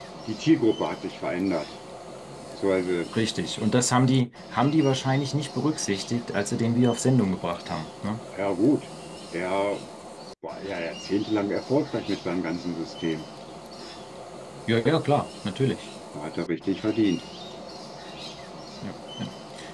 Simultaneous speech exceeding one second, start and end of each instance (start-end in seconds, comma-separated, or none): none